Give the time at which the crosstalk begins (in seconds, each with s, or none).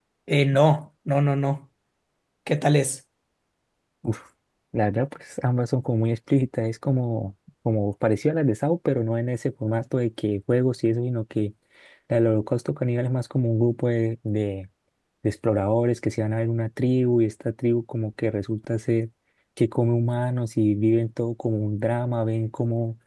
none